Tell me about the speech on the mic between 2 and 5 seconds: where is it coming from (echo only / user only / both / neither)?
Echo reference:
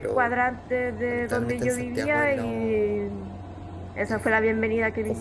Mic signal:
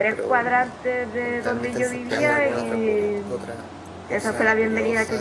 both